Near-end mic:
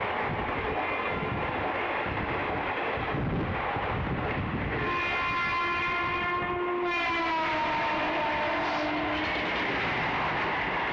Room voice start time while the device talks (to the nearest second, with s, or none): none